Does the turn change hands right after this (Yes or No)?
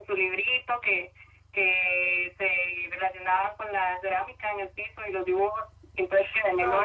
No